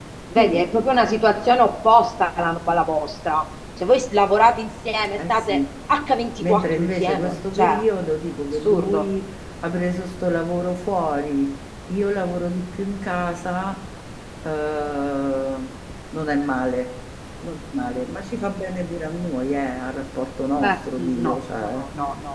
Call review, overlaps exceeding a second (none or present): present